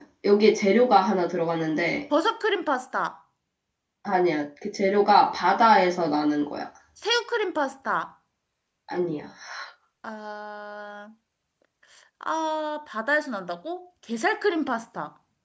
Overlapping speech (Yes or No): No